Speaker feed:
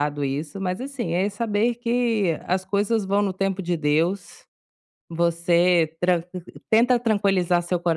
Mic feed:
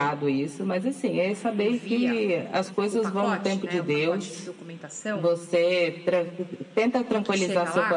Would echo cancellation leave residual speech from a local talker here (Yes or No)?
Yes